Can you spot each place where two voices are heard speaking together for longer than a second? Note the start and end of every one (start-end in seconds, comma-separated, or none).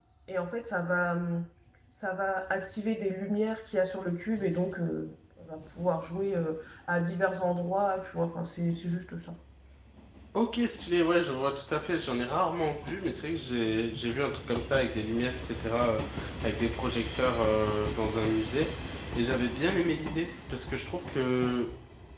none